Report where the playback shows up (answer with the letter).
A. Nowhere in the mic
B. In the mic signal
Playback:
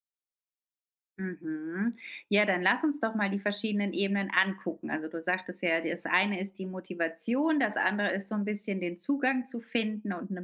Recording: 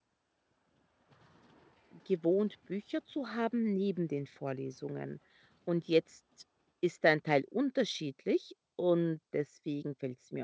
A